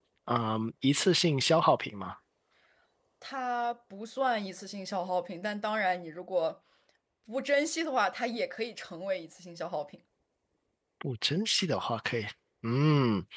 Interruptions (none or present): none